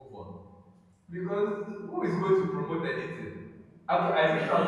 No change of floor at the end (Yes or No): Yes